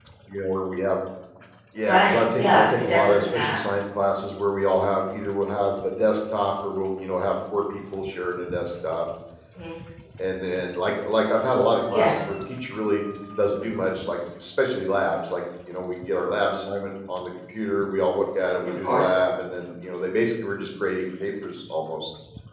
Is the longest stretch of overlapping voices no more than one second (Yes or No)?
No